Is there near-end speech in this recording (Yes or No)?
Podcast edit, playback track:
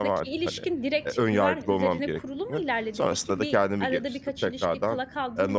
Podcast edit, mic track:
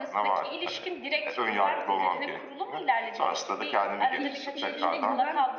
Yes